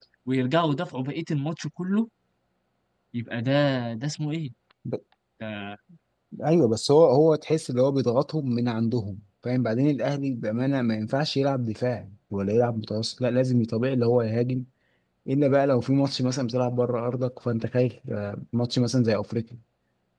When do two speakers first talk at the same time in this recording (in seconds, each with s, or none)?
none